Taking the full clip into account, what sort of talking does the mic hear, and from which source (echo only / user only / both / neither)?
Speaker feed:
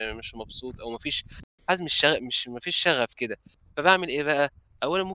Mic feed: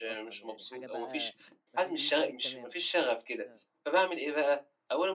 both